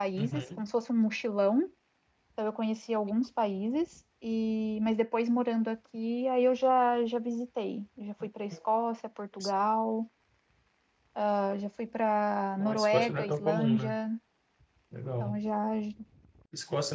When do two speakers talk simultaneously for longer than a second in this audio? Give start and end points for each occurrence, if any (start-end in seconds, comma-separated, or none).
12.6-13.9